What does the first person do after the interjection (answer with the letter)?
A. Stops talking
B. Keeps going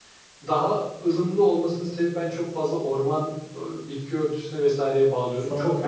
A